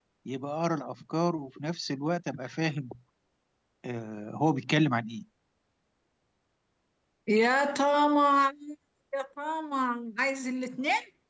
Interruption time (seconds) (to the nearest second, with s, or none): none